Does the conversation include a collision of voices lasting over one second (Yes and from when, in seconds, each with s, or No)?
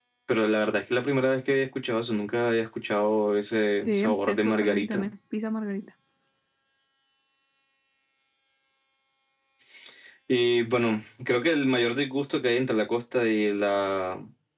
Yes, from 3.8 s